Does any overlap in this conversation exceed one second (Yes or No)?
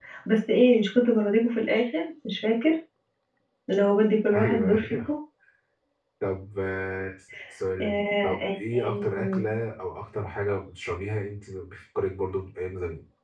Yes